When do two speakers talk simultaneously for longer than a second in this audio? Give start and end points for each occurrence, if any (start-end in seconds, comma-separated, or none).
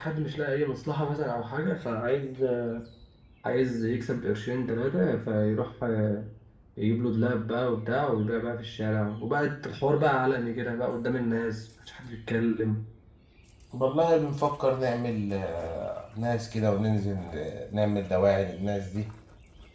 none